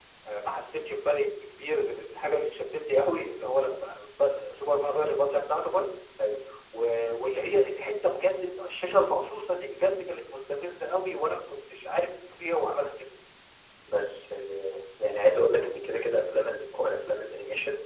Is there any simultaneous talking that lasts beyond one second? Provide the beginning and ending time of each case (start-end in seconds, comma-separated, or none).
none